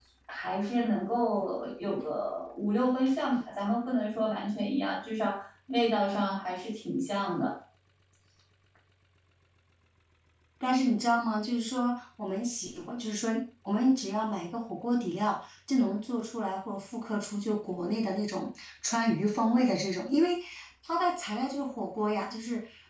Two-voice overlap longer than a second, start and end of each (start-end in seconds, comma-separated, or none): none